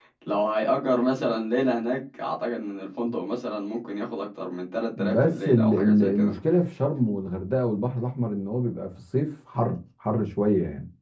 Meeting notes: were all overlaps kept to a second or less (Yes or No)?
No